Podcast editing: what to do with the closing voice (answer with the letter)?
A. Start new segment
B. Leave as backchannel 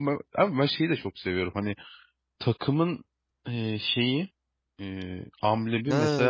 A